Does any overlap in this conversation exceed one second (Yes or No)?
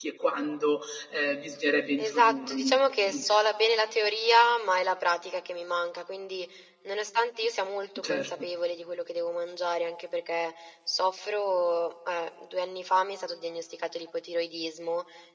Yes